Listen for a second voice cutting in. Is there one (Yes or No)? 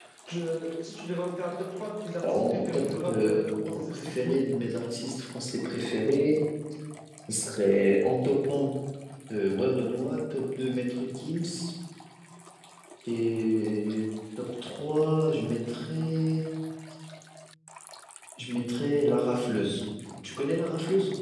Yes